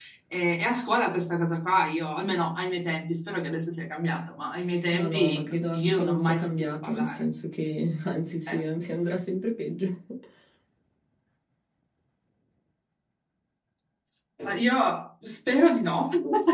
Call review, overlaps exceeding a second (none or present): present